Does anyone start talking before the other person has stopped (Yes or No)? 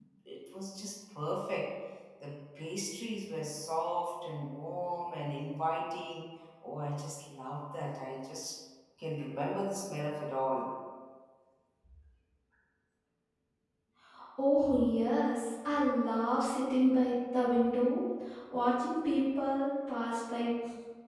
No